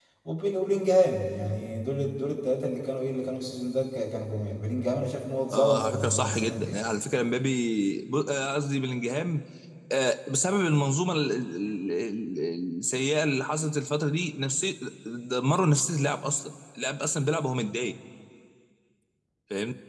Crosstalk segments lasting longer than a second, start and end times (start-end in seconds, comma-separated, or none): 5.5-6.8